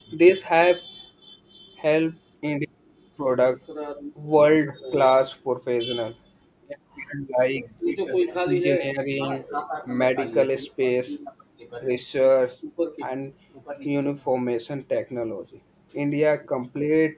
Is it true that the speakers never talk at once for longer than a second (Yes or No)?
No